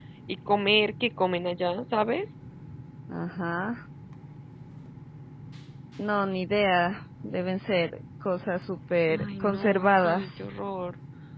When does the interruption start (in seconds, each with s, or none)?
9.1 s